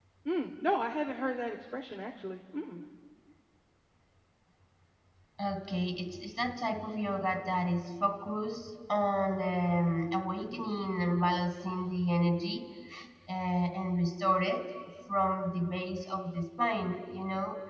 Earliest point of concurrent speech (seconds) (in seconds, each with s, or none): none